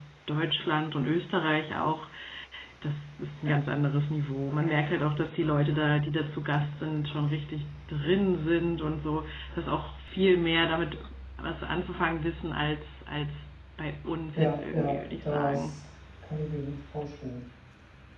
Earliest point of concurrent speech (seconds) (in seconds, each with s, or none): 14.3 s